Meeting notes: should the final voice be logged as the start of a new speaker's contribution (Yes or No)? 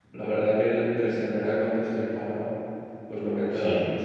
No